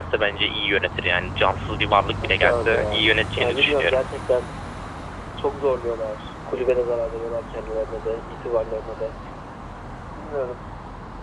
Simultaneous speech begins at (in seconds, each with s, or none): 2.2 s